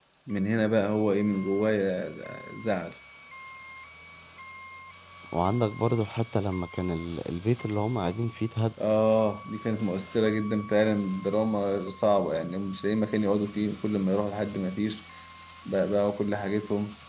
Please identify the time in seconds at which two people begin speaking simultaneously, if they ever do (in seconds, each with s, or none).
none